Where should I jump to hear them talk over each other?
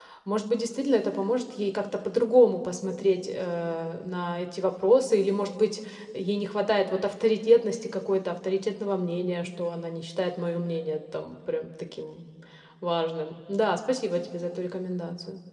none

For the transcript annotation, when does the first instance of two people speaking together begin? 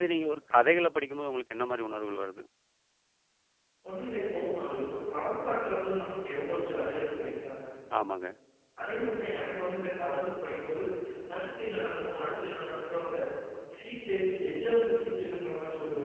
none

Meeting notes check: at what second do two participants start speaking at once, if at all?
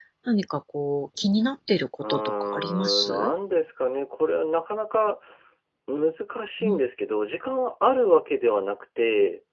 2.0 s

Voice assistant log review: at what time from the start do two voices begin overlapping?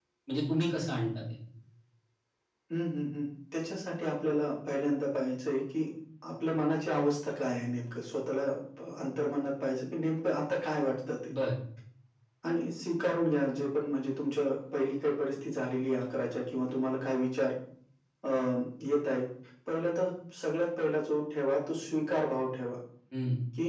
none

